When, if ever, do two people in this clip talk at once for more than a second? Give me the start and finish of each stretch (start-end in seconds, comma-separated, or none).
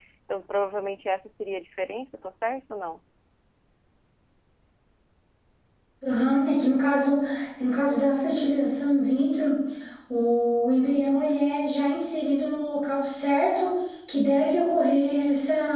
none